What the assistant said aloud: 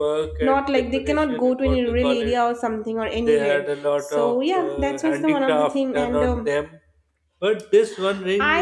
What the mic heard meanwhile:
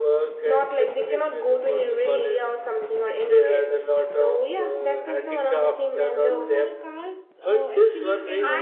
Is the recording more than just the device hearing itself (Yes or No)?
Yes